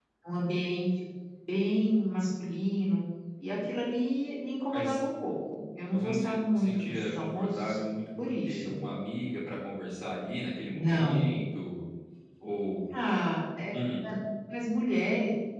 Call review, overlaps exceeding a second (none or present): present